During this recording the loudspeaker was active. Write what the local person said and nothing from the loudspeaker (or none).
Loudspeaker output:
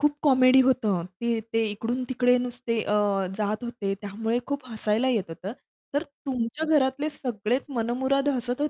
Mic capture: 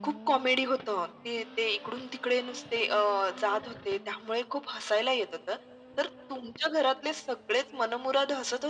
none